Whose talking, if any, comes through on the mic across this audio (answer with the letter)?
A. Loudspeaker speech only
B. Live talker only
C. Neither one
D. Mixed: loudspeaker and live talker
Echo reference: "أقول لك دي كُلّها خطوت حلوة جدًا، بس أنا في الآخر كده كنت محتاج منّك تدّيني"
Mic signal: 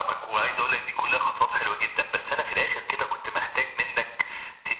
A